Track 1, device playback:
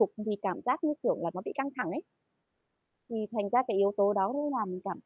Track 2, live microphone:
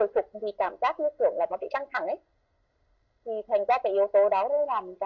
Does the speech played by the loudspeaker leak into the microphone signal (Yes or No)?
Yes